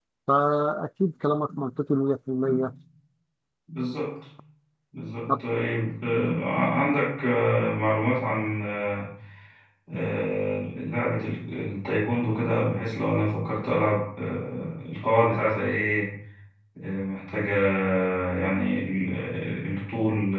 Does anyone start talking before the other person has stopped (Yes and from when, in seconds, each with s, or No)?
No